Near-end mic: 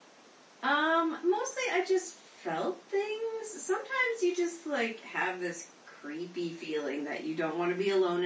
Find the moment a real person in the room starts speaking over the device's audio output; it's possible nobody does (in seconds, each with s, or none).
0.6 s